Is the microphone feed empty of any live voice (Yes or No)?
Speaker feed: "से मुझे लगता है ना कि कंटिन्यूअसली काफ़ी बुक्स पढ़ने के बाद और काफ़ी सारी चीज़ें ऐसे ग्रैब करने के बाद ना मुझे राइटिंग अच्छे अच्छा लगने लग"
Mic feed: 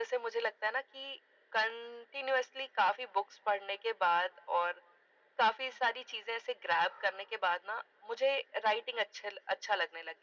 Yes